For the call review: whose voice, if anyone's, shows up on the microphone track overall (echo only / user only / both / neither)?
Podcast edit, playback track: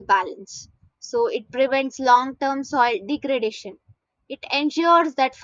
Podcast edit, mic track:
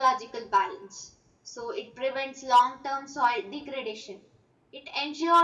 echo only